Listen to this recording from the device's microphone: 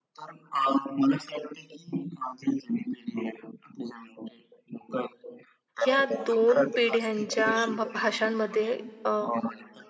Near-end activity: present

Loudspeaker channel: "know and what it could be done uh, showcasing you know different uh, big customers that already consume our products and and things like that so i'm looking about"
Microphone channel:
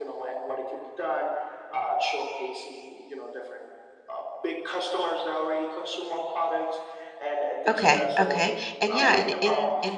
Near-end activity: present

